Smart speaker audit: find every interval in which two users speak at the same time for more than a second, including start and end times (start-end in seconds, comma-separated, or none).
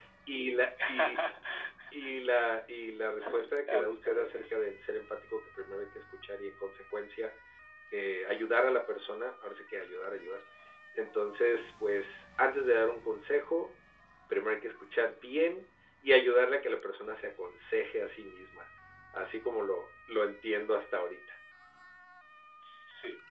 3.2-4.5